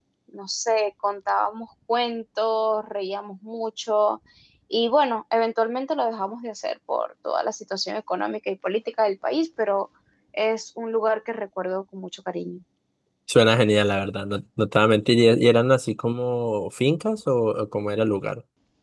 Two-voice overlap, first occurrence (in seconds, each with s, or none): none